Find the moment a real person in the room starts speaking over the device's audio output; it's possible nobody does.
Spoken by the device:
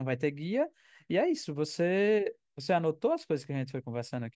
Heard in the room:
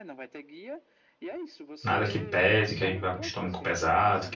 1.8 s

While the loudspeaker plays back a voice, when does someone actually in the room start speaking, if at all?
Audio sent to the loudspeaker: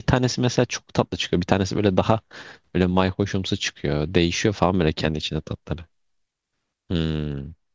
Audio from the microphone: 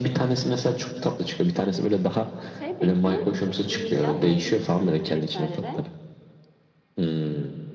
1.6 s

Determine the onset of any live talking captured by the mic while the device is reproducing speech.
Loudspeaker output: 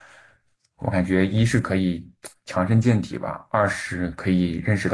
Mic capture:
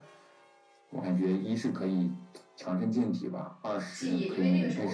3.9 s

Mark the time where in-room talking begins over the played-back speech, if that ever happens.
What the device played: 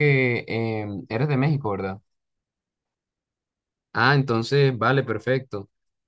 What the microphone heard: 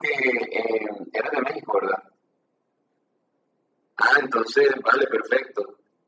none

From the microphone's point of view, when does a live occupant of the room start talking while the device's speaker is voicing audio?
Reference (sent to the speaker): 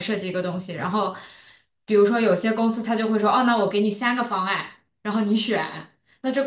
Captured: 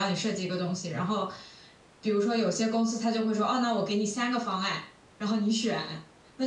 none

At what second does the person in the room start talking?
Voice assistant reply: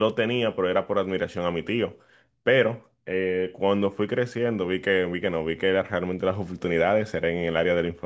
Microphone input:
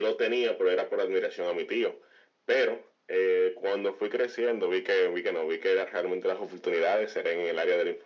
none

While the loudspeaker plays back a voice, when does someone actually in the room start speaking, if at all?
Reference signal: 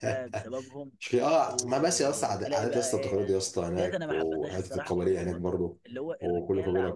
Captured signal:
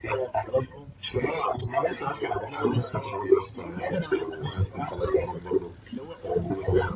none

